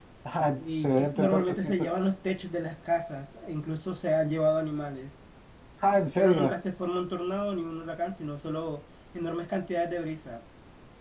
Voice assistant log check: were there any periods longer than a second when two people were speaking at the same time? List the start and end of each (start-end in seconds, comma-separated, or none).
0.6-1.9